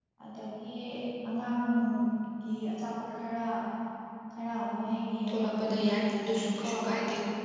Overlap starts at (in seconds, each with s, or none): 5.3 s